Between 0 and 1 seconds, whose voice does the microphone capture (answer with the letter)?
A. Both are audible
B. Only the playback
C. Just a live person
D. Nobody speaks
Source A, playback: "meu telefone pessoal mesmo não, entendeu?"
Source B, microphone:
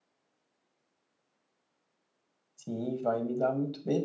D